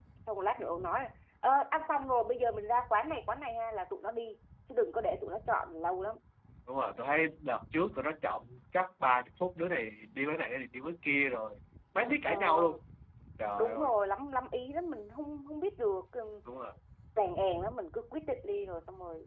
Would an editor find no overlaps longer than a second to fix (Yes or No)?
Yes